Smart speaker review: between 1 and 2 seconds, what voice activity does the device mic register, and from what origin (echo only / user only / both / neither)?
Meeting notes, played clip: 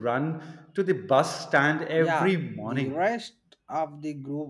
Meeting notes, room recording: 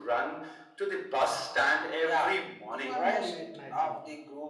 echo only